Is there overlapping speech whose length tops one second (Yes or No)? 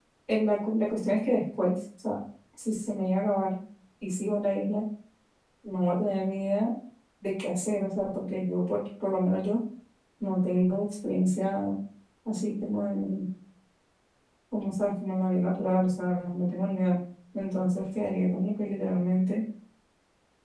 No